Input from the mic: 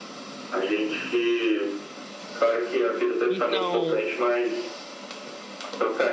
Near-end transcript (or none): Então,